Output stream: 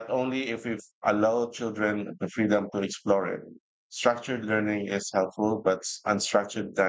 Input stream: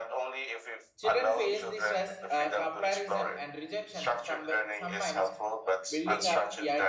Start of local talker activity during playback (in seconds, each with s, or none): 1.0 s